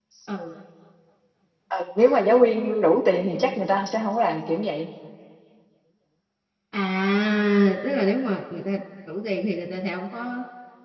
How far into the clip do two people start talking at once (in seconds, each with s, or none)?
none